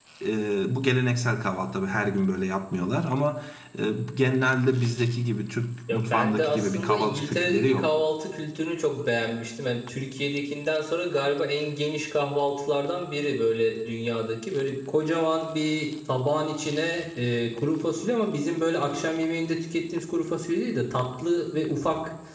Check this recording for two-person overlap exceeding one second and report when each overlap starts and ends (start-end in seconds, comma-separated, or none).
5.9-7.9